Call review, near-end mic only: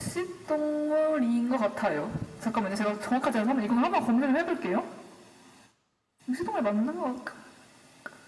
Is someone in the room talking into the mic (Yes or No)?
No